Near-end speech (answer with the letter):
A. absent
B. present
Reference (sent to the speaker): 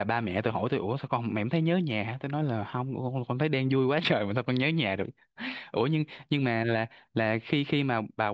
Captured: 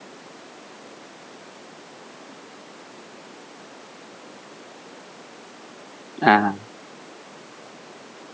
B